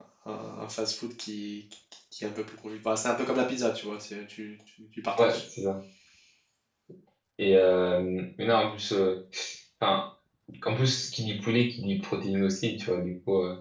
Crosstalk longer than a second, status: none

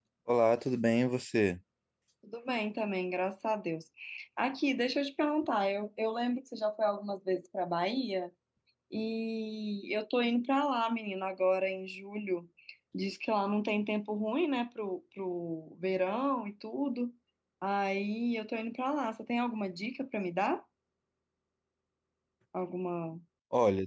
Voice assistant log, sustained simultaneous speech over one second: none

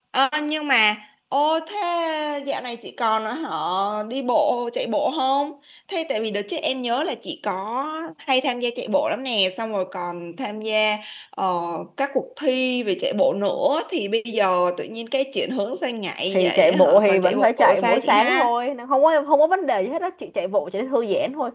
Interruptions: present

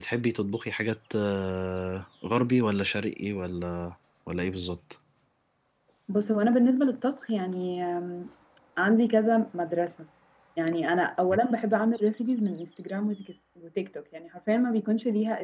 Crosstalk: none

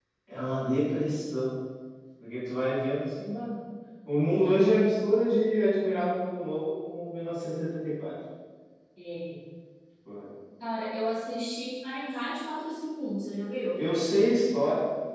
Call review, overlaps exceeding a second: none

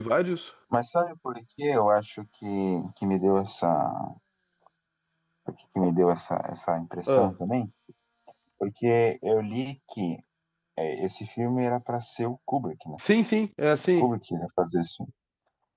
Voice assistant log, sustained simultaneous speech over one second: none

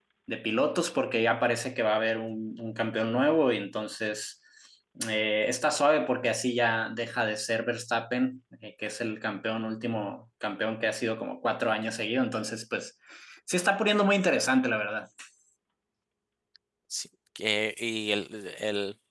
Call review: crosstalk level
none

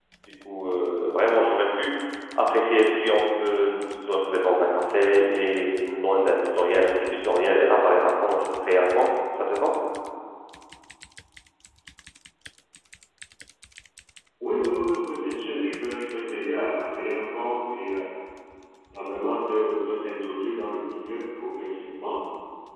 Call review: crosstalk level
none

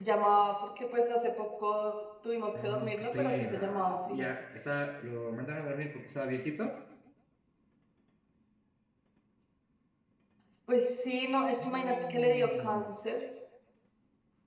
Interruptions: present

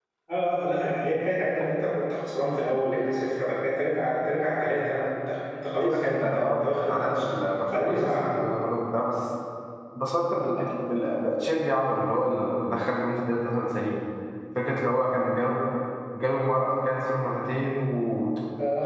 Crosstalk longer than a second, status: present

